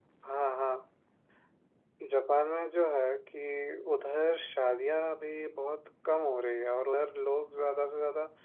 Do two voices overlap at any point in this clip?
No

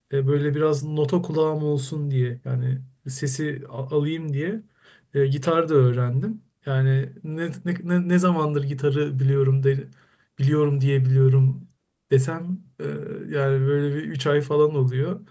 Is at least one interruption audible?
No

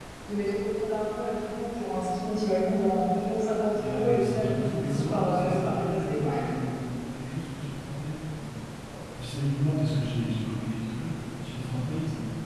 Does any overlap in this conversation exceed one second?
Yes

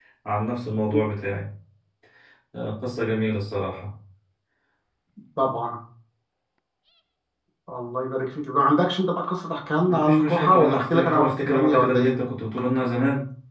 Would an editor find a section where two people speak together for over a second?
Yes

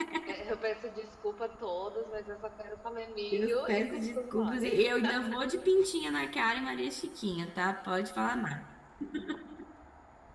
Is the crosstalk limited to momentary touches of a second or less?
No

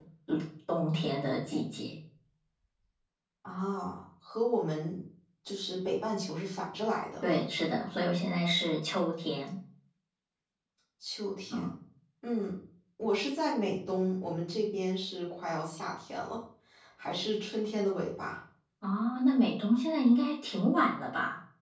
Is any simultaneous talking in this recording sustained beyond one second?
No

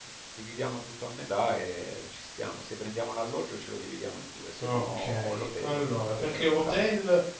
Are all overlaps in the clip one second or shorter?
No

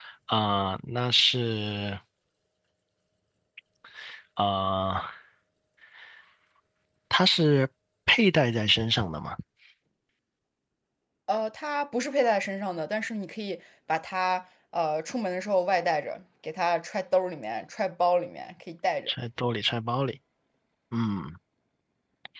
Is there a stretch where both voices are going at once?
No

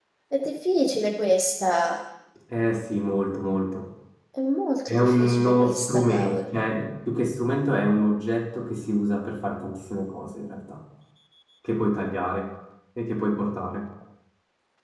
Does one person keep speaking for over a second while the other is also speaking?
Yes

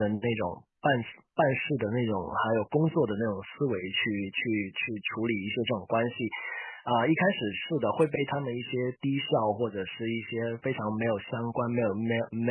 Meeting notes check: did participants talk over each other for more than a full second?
No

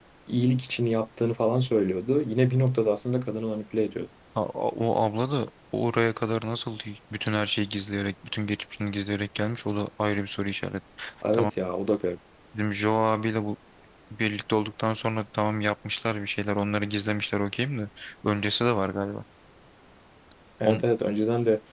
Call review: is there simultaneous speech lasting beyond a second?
No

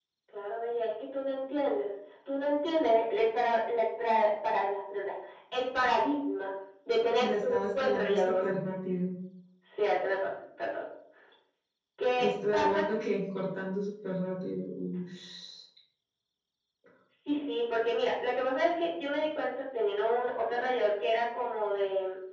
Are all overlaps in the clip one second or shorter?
No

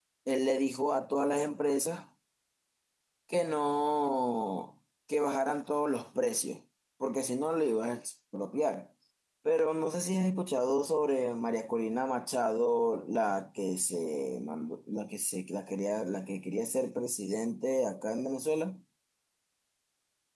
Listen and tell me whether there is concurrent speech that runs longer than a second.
No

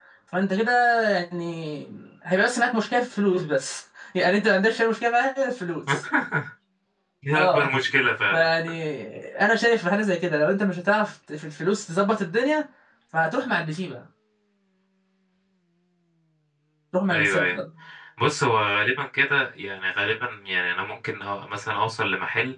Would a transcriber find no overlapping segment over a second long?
Yes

